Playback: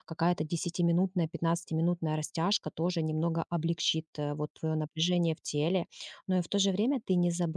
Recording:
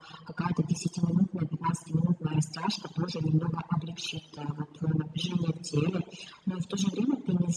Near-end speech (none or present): none